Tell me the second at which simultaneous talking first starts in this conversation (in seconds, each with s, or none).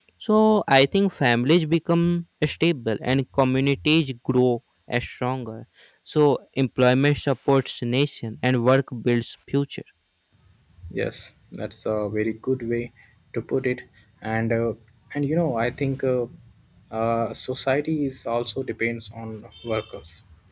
none